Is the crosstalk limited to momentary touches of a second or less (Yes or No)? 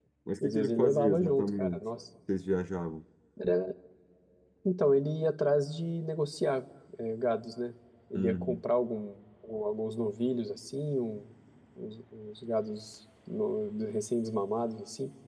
No